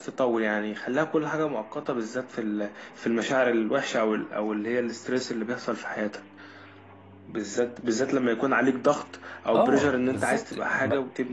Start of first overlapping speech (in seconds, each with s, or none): 9.5 s